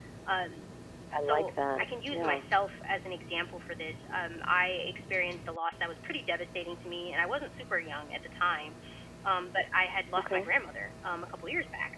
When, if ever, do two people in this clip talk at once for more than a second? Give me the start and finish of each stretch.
1.2-2.4

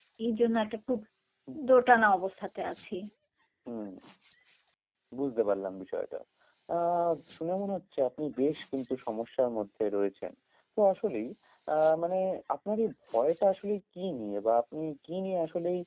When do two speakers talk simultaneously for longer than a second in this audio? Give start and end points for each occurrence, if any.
none

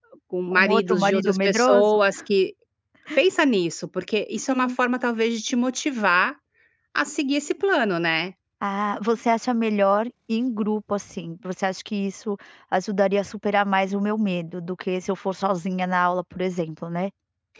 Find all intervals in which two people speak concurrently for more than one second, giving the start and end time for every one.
0.5-2.0

